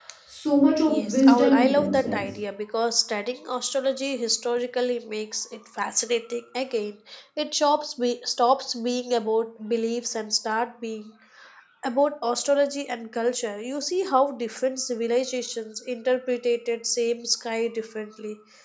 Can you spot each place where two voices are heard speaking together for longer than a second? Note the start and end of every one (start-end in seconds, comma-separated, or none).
0.9-2.2